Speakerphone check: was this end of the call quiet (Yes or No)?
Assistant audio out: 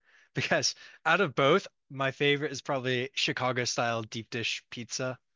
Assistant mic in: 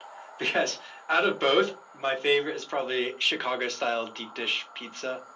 Yes